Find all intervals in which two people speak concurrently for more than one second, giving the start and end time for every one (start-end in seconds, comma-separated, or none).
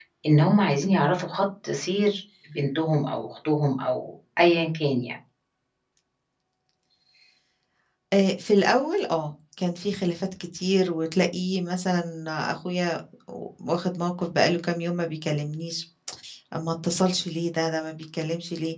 none